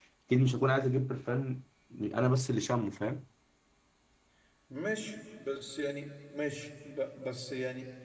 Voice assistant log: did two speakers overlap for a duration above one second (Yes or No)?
No